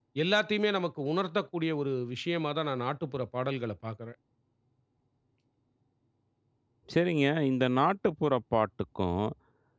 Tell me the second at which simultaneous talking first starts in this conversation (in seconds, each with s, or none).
none